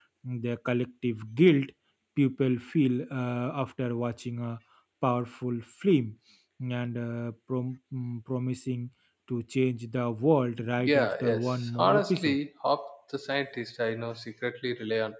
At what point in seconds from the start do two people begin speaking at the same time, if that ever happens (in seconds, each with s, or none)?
10.8 s